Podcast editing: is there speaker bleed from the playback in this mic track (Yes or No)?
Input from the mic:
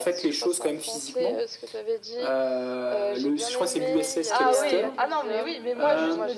Yes